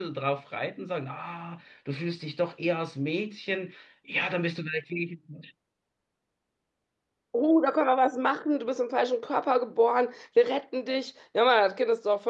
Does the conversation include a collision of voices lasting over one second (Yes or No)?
No